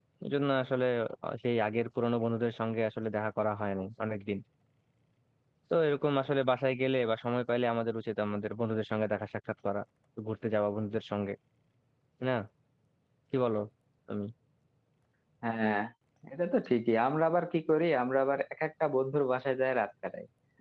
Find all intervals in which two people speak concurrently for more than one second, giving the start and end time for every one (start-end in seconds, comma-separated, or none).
none